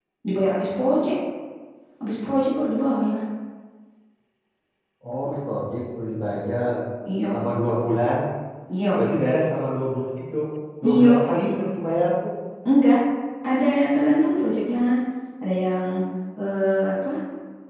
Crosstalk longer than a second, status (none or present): none